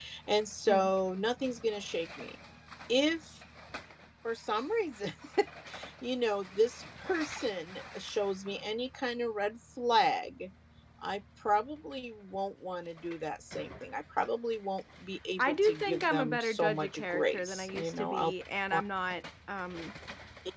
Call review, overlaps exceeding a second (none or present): present